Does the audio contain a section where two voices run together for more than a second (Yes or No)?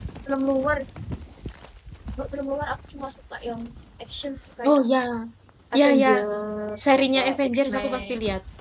Yes